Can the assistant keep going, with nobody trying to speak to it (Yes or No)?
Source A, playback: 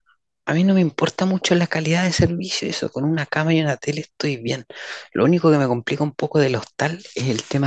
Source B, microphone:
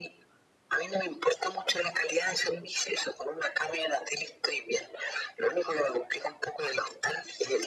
Yes